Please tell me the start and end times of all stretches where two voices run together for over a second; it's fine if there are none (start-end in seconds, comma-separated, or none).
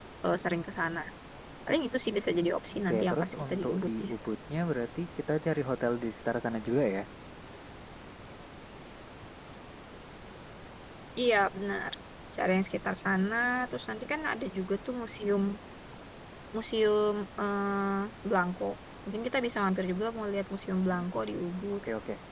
2.9-4.1